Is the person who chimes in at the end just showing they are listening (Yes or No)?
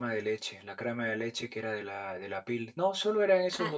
No